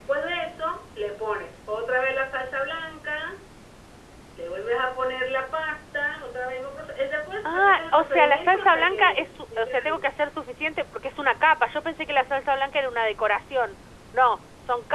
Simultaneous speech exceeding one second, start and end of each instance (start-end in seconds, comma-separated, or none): 7.4-10.1